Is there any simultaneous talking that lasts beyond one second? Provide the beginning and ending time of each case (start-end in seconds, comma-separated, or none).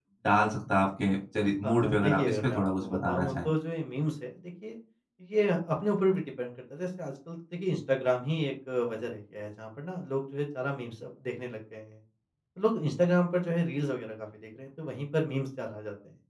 1.6-3.5